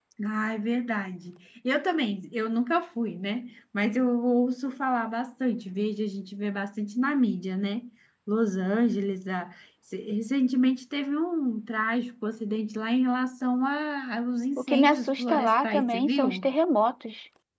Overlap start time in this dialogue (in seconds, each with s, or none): 14.6 s